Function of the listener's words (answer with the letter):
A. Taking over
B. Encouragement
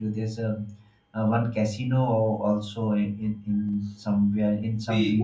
A